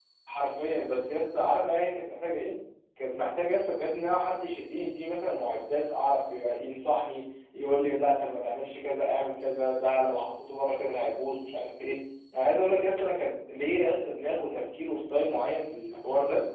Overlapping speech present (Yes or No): No